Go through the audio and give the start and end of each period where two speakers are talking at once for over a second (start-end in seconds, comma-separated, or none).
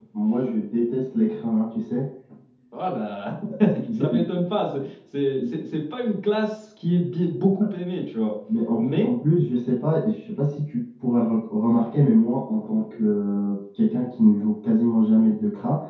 none